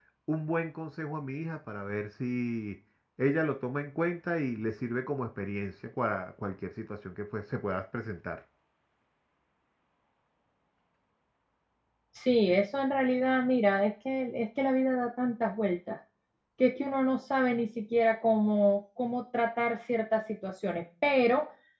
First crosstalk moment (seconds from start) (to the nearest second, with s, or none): none